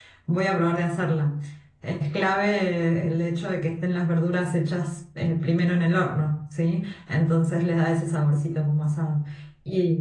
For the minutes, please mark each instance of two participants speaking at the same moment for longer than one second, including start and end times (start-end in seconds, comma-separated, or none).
none